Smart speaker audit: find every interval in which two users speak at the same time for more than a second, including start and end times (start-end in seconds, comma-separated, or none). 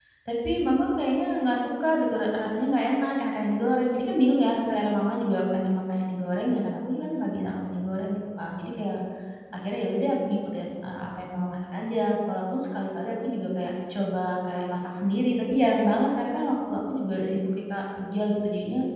none